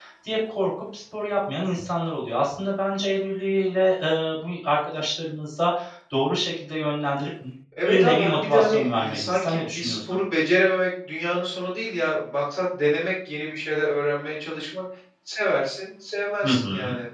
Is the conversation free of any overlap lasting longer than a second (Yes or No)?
No